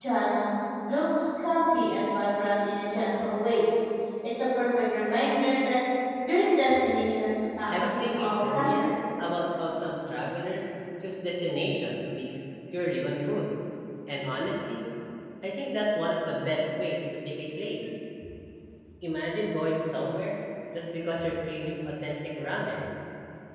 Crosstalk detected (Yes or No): Yes